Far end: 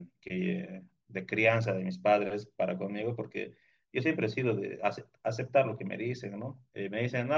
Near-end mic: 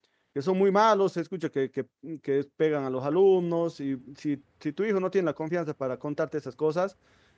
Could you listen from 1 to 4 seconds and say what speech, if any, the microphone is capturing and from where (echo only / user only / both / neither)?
user only